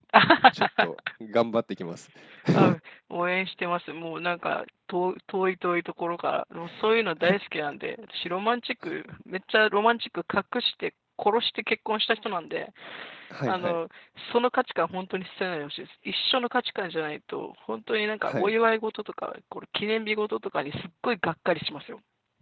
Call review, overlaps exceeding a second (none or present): none